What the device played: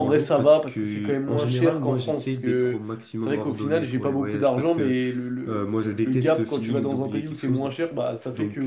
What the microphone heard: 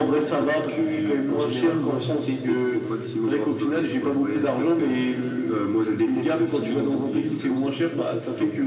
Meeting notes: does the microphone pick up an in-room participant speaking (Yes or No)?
No